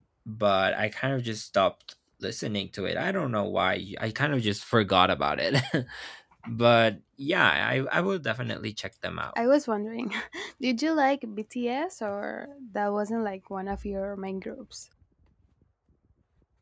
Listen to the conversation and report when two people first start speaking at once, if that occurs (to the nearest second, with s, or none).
none